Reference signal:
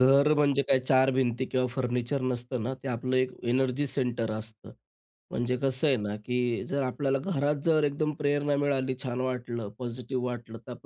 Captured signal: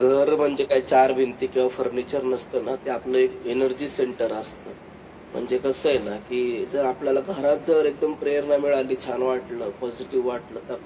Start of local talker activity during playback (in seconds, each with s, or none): none